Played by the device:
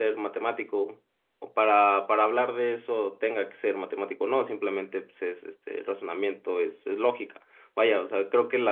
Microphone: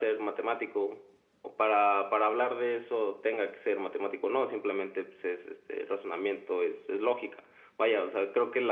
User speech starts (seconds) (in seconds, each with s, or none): none